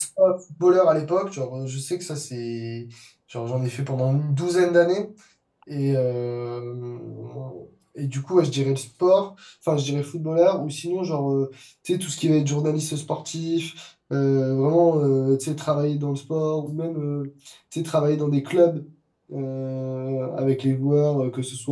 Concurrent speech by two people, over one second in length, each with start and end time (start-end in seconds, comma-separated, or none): none